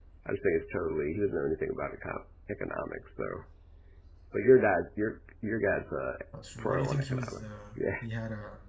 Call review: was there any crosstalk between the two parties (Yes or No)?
Yes